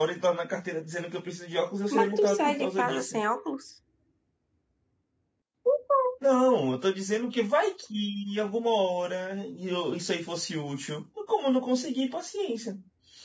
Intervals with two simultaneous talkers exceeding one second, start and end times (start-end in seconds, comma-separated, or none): 1.9-3.2